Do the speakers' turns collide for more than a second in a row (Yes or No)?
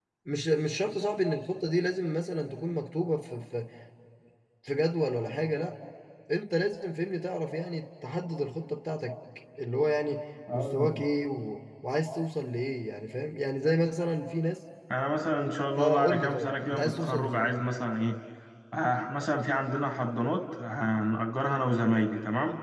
Yes